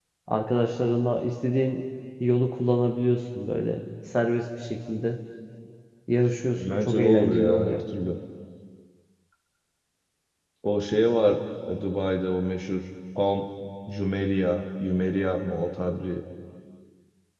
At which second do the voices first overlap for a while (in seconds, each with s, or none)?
6.6 s